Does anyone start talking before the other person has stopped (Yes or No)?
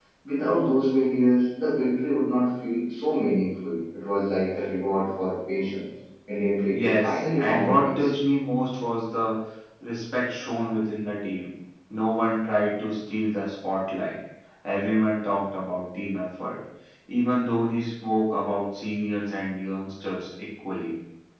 Yes